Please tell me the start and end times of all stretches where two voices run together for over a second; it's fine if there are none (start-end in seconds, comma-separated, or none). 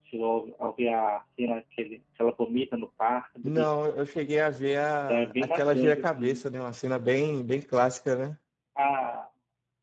5.1-6.4